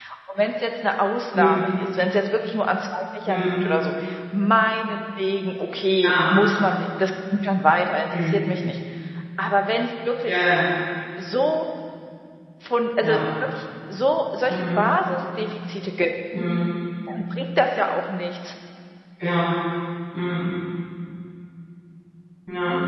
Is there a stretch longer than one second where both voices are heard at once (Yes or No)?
No